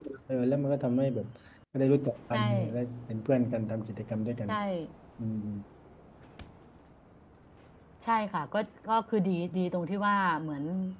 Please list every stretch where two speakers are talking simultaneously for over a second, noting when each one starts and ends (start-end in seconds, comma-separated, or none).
none